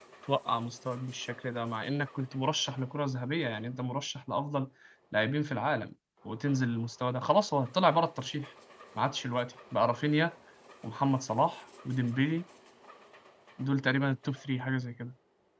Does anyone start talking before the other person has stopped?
No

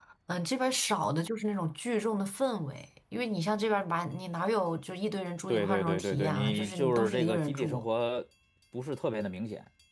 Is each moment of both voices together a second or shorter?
No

